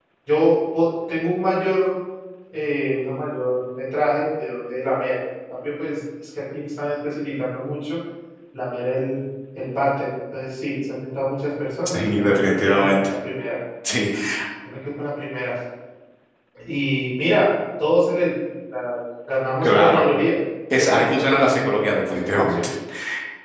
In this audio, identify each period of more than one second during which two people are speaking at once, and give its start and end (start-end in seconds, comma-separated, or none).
11.9-13.1, 20.7-22.6